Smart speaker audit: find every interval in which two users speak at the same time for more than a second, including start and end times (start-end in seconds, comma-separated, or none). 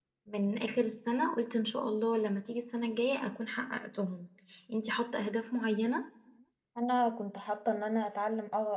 none